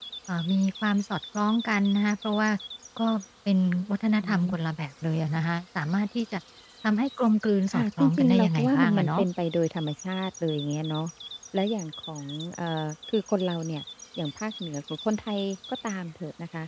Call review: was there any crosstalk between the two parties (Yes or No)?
Yes